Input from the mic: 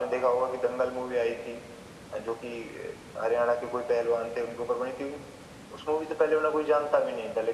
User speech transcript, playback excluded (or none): none